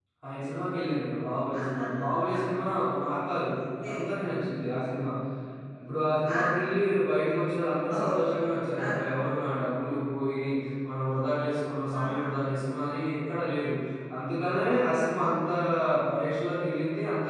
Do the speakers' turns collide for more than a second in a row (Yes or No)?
No